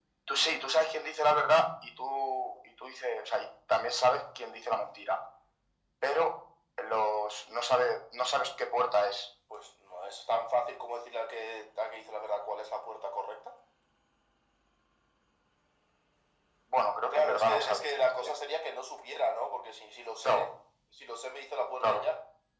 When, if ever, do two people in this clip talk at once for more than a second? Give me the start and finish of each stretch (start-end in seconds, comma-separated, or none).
17.1-18.3